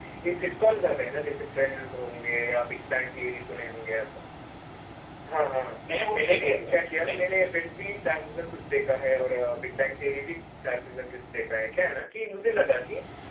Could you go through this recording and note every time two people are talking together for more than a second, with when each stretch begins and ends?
6.1-7.5

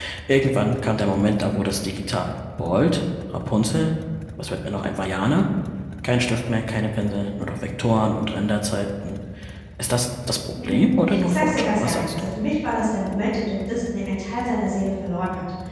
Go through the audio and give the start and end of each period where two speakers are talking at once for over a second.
10.6-12.3

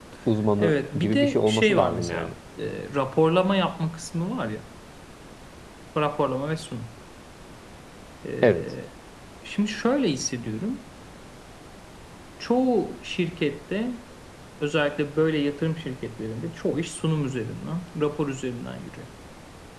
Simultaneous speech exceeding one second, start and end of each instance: 0.6-2.3

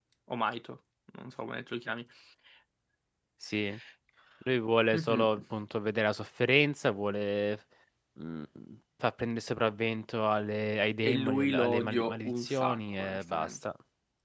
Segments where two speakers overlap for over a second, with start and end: 11.0-13.6

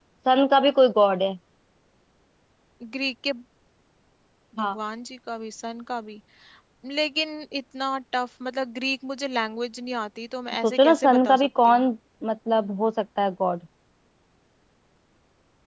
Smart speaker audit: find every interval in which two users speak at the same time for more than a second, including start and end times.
10.6-11.8

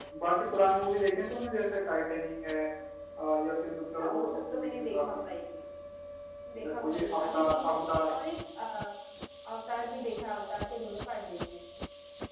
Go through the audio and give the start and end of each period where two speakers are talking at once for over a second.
4.0-5.2, 6.6-8.1

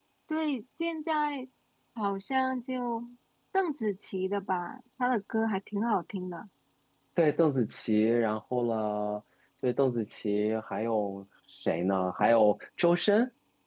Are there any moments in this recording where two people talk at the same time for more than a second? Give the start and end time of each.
none

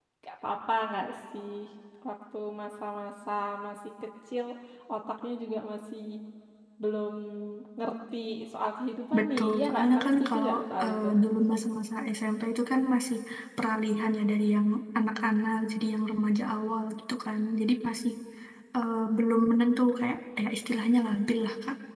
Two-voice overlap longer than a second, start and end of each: 9.2-10.5

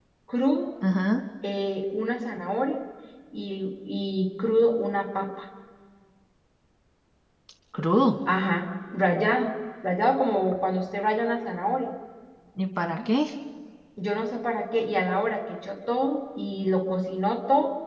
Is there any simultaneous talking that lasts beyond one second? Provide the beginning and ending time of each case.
none

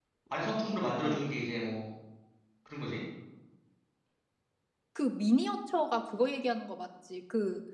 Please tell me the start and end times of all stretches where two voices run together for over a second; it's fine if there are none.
none

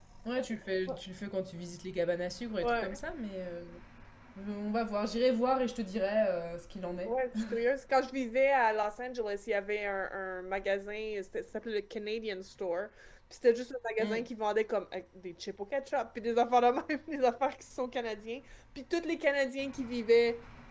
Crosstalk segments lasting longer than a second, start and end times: none

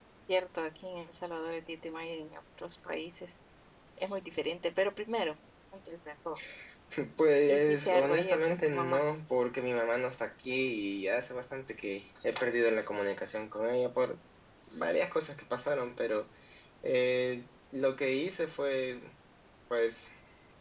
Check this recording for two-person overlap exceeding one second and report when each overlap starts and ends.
7.5-9.0

